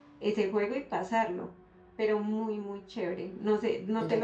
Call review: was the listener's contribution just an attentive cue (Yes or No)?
No